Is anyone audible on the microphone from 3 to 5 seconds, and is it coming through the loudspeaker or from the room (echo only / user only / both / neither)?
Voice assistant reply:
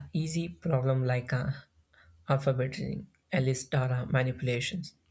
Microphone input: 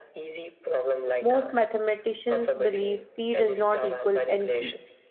both